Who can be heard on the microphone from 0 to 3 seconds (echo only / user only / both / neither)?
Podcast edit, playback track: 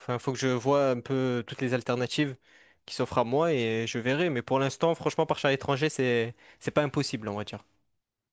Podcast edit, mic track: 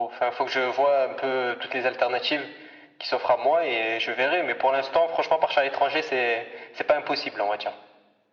echo only